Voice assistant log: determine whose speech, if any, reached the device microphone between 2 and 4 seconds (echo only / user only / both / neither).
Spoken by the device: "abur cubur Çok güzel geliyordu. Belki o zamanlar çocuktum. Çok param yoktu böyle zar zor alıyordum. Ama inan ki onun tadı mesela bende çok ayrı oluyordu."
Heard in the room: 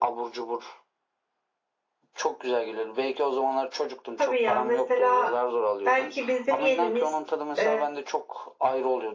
echo only